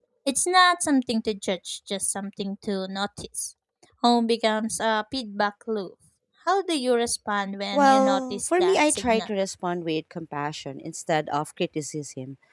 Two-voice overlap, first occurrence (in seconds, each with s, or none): 7.7 s